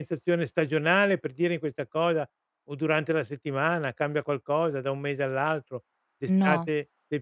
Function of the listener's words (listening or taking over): listening